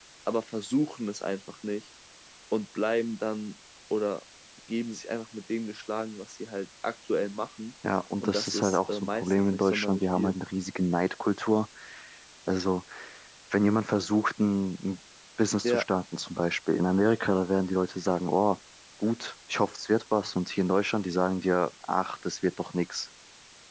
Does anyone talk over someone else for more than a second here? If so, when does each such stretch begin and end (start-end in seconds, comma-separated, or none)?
8.2-10.3